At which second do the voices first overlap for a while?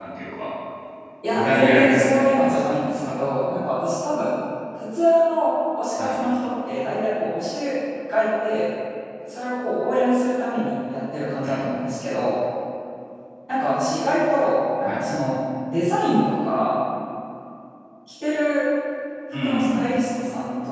1 s

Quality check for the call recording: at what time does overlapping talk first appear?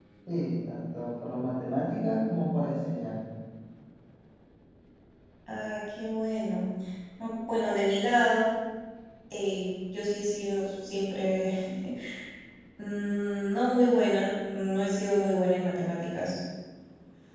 none

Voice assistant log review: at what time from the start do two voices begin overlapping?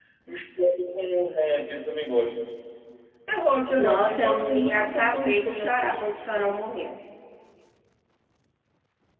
4 s

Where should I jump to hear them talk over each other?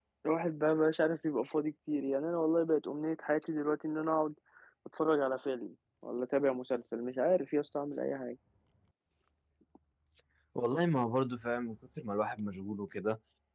none

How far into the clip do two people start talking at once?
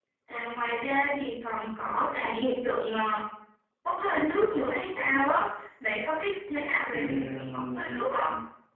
7 s

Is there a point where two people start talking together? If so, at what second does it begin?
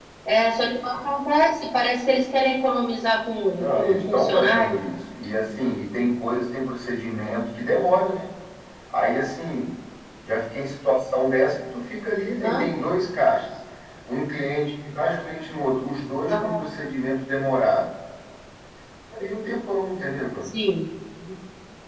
4 s

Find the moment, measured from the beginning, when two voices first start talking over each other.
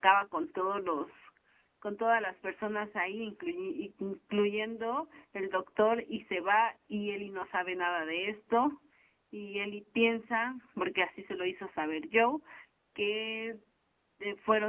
none

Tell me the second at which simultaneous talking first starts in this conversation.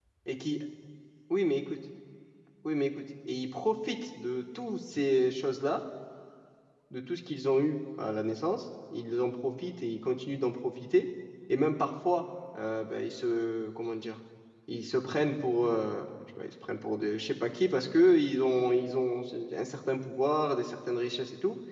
none

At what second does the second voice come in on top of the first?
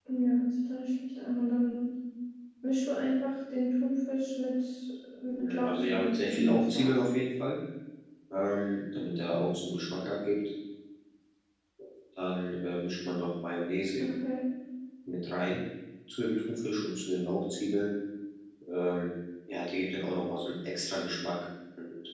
5 s

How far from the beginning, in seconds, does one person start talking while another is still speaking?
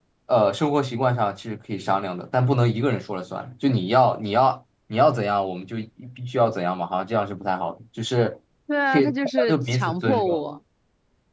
9 s

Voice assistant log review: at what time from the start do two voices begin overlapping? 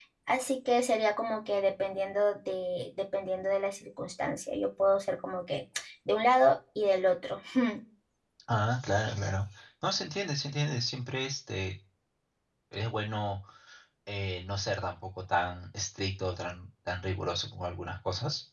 none

